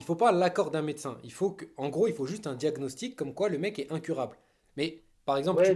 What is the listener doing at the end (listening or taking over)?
taking over